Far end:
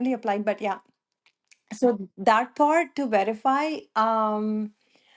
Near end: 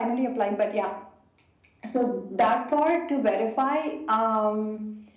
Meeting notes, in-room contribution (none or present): none